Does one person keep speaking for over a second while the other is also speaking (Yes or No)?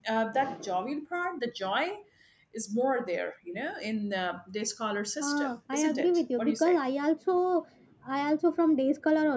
Yes